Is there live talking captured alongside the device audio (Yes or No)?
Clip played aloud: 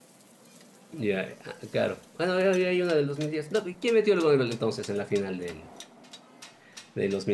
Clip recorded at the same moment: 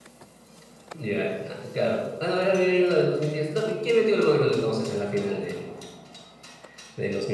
No